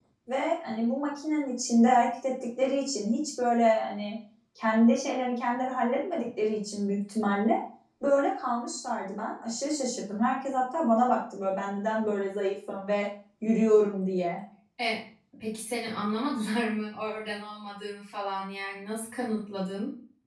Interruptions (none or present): none